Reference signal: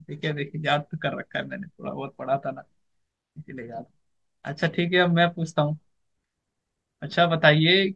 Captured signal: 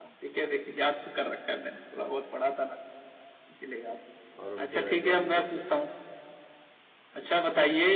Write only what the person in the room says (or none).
और उनके वैज्ञानिकों पे